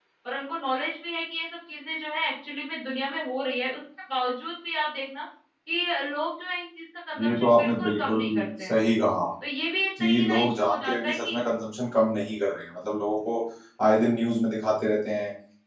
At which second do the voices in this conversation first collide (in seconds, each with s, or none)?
7.2 s